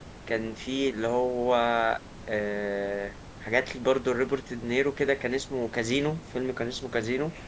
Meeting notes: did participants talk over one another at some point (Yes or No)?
No